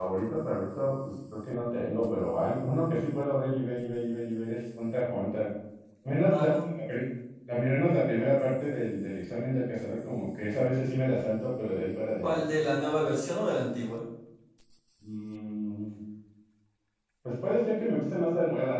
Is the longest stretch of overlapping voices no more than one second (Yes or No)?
Yes